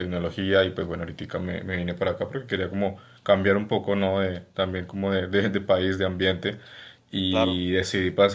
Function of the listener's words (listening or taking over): listening